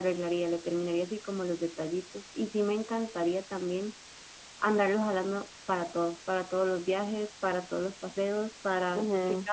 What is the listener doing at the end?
listening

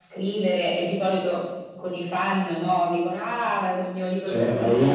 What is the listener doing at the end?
taking over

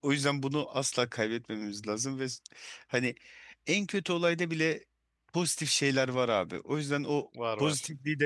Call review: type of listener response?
listening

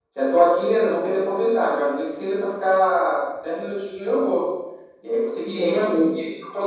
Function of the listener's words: listening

